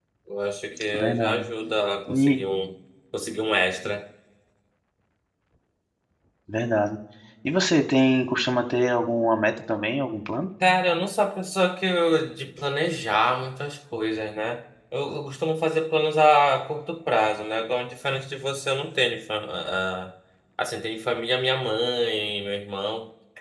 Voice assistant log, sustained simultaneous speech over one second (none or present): none